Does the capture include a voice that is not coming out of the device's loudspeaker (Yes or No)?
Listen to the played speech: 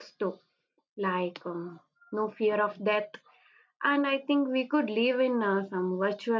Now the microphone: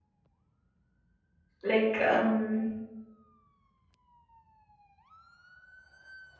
Yes